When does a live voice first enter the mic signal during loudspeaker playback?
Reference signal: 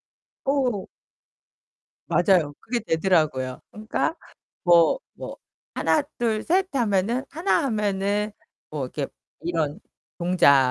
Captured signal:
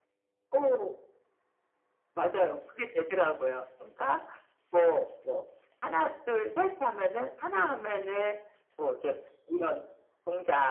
none

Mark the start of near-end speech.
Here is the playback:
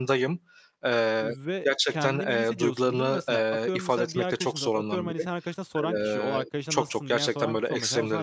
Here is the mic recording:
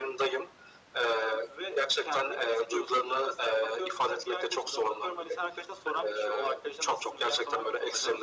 none

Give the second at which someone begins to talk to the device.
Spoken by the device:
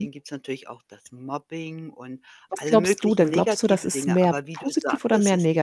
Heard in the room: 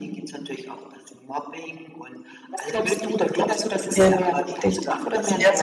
4.0 s

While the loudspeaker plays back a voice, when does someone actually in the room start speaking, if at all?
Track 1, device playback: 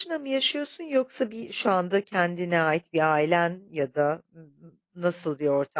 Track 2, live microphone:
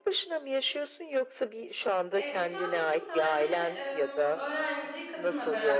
2.2 s

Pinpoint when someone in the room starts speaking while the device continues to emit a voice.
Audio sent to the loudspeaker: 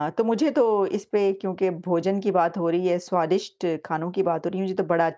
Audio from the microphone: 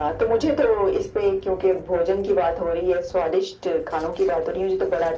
none

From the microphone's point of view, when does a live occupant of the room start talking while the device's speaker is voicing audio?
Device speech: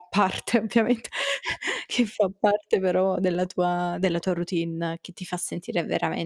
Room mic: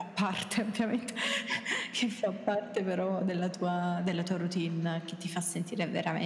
none

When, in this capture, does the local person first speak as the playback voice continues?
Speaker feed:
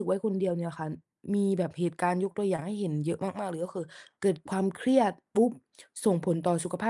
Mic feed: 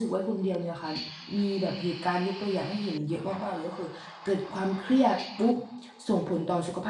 none

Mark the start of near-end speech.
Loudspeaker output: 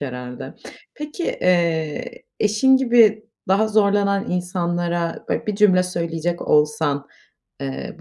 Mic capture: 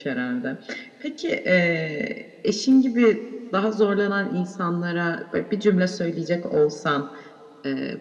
none

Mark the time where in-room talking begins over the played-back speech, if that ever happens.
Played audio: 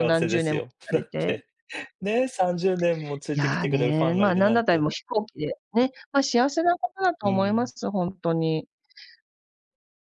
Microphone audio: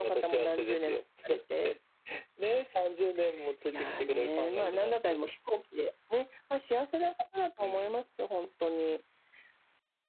none

